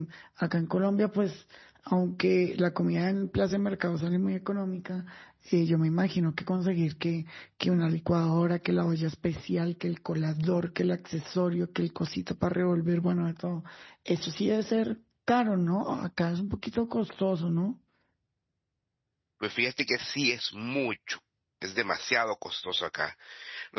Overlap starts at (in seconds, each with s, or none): none